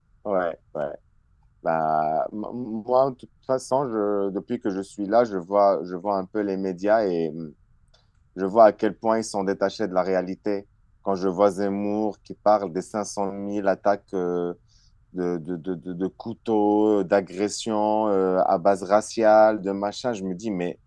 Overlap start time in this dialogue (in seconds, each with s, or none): none